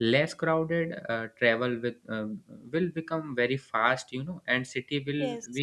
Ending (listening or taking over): listening